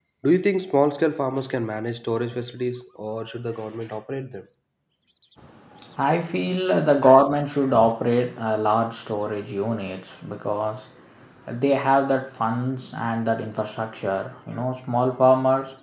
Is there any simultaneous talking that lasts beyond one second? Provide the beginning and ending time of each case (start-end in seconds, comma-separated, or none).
none